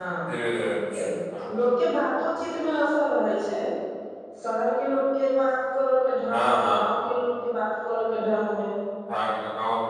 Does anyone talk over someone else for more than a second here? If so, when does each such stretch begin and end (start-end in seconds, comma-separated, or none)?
none